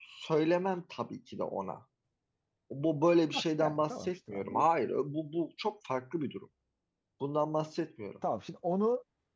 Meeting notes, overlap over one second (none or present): present